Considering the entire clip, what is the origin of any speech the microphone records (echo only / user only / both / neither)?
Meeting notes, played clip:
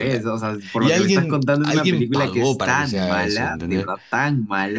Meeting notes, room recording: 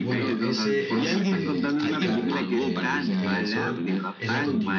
both